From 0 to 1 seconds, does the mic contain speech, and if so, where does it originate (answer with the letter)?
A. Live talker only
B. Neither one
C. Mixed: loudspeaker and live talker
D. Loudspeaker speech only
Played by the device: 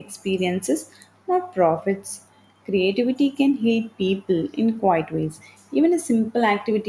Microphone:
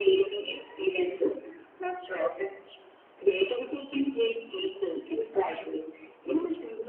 D